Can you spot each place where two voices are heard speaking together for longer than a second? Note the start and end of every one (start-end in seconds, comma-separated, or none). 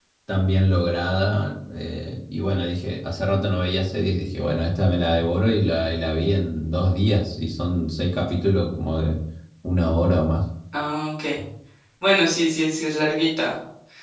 none